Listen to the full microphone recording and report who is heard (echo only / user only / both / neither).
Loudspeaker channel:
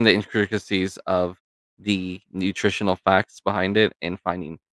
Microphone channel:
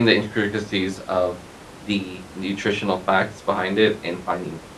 echo only